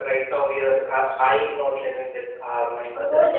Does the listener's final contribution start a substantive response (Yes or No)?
Yes